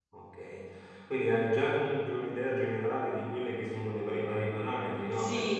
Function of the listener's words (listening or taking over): taking over